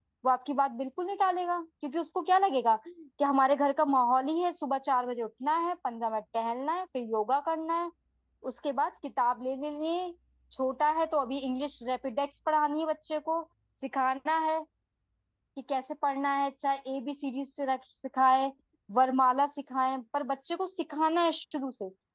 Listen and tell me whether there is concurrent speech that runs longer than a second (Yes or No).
No